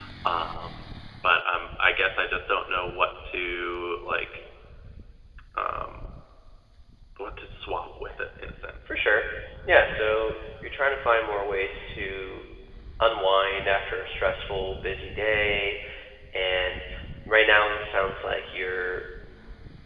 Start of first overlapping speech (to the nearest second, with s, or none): none